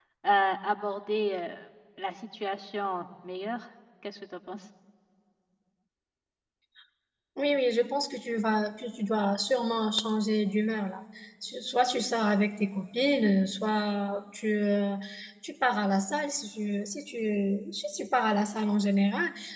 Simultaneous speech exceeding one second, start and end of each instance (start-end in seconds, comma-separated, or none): none